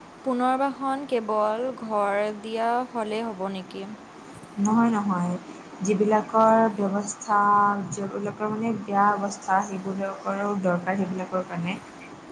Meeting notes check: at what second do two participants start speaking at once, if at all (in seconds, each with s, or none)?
none